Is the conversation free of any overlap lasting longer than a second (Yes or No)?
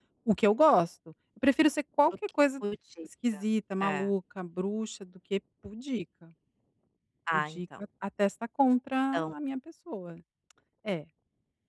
Yes